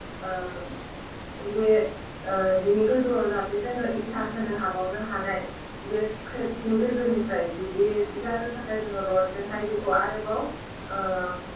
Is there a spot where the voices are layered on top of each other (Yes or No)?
No